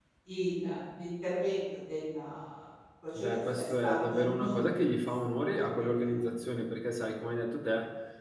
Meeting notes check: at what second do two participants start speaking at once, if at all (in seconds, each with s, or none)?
3.1 s